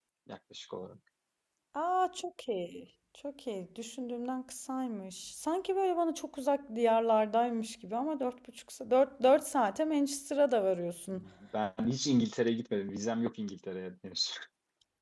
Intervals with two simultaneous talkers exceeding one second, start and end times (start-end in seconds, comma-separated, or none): none